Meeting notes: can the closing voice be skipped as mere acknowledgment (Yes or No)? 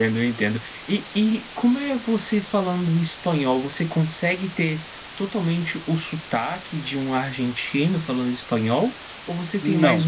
Yes